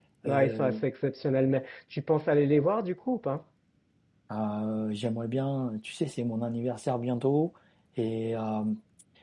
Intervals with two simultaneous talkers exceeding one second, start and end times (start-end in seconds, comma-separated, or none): none